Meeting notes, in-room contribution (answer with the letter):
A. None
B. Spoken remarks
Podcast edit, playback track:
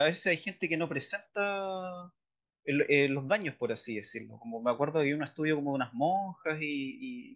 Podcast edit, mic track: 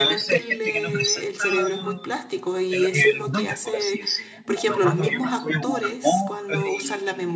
B